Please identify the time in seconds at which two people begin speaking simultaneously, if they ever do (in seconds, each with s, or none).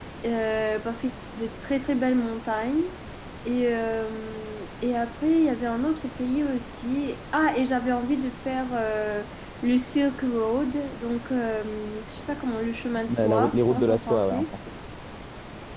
13.1 s